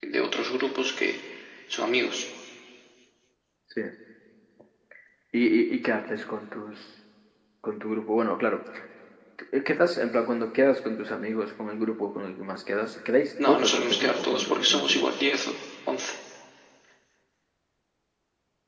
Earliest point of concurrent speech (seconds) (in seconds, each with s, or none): 13.4 s